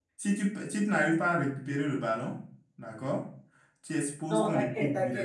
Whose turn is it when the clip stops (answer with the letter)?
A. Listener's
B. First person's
A